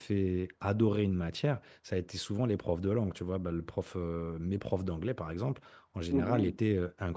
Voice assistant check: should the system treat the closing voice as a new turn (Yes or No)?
No